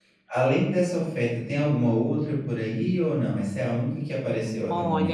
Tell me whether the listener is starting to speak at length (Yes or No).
Yes